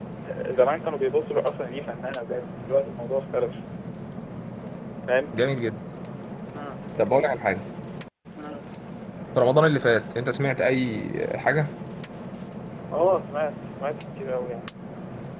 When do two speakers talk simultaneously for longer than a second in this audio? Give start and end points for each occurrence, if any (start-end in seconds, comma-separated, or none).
none